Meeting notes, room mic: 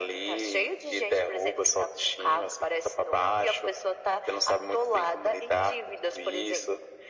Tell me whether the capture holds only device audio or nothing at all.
Yes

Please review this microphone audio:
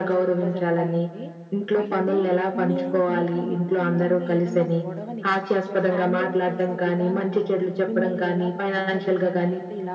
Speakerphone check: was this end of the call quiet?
No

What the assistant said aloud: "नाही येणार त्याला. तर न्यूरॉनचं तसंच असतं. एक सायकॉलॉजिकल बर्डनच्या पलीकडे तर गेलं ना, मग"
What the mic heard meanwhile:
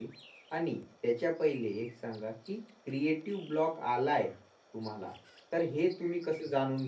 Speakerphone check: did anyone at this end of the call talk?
Yes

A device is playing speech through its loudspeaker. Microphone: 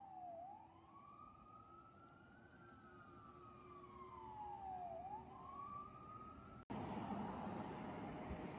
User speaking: No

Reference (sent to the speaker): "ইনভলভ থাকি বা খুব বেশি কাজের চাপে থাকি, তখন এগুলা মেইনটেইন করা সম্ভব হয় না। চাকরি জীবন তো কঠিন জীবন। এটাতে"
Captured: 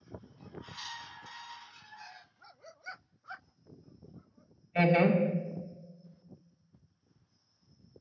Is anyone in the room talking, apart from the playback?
Yes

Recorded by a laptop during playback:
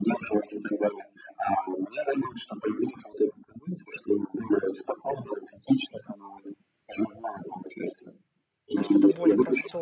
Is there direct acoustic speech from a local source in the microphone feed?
Yes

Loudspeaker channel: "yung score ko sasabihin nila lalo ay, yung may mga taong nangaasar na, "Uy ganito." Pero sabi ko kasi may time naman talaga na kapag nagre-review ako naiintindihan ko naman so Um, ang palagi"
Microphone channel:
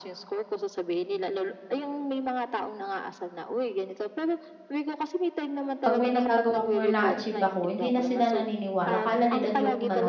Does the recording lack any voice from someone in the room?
No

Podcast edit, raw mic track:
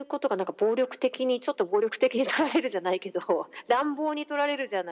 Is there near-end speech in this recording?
No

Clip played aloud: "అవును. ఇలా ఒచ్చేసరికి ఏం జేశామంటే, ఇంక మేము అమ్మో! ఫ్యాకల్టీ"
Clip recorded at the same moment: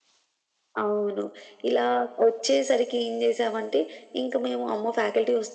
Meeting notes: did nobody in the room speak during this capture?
Yes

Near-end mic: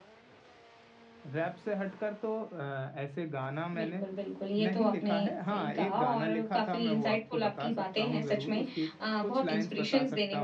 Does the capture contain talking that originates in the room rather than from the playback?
Yes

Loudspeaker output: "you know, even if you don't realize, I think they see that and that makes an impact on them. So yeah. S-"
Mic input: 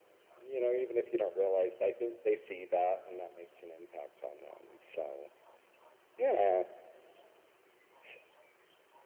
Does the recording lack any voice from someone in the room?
Yes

